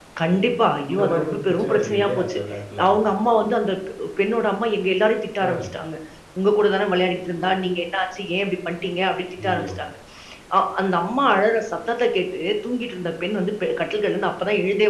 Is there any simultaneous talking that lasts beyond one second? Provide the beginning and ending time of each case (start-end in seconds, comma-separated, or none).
0.9-2.4